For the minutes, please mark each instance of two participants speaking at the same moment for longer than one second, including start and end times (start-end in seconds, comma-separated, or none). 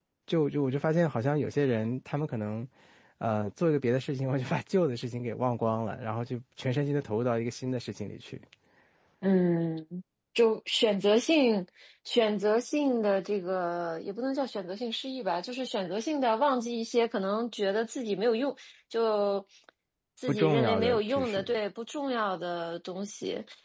20.3-21.5